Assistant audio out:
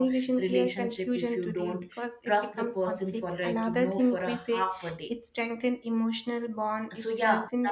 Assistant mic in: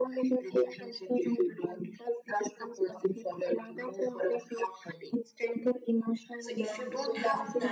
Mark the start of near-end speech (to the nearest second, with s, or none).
6 s